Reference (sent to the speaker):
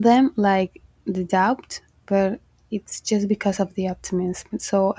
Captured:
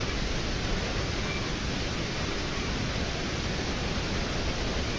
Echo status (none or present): none